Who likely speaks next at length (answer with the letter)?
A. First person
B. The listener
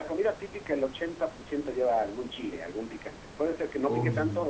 A